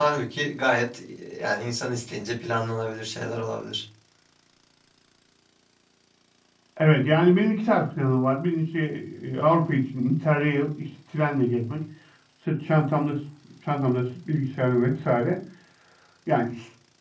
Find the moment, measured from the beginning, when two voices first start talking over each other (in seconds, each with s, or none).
none